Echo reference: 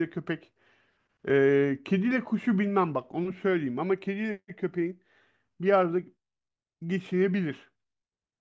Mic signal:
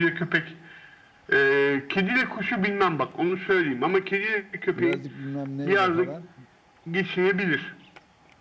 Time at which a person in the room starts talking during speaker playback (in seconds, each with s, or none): 4.8 s